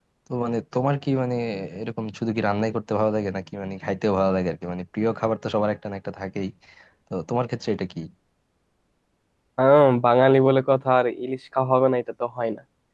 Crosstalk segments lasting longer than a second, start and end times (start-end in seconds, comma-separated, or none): none